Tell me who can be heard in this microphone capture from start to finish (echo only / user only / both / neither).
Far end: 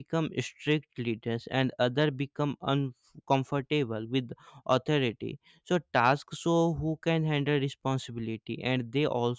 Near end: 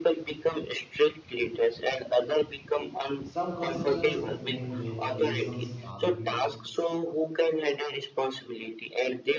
both